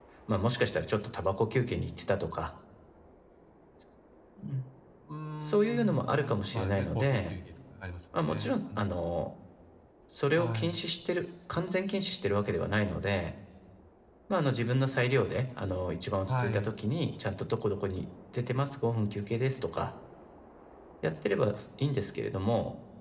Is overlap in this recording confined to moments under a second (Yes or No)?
No